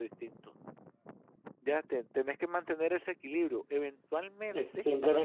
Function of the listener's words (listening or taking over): taking over